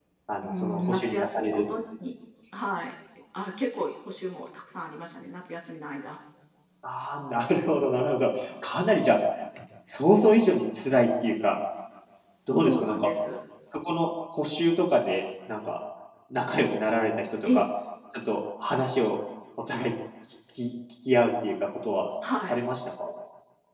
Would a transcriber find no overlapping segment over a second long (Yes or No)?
No